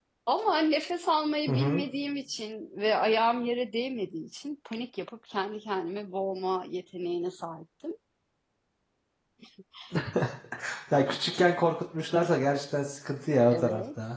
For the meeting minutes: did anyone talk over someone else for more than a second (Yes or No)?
No